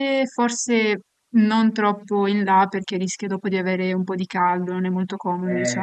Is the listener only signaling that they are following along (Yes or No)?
No